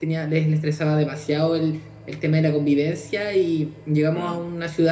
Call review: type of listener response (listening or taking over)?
listening